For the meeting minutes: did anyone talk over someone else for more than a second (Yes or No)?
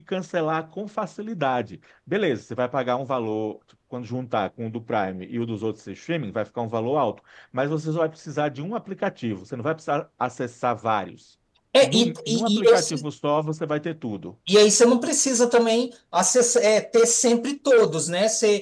Yes